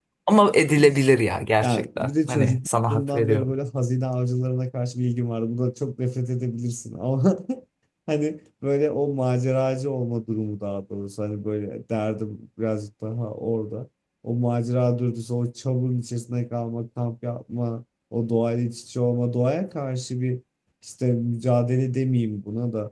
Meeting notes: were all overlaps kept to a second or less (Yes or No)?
No